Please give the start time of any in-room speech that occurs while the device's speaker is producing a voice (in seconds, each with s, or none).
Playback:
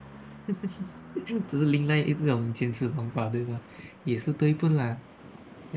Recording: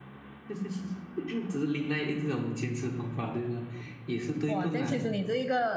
4.4 s